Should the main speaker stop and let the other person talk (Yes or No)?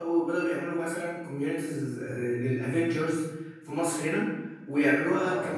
No